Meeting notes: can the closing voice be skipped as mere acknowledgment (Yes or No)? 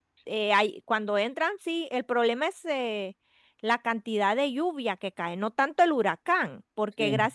Yes